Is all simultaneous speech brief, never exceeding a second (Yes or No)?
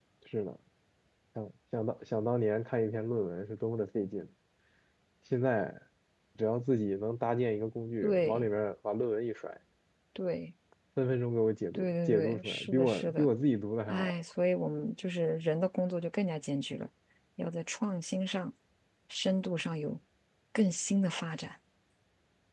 No